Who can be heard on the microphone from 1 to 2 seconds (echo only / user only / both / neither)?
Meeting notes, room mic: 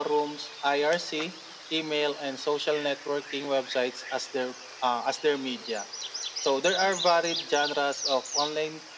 echo only